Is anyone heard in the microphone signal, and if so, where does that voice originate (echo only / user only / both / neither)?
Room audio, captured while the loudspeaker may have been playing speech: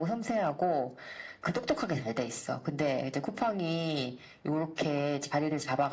echo only